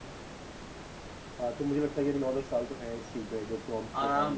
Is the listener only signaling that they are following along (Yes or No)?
No